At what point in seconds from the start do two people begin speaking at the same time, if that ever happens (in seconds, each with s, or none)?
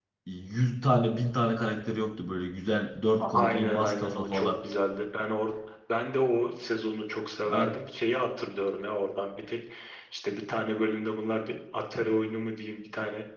3.2 s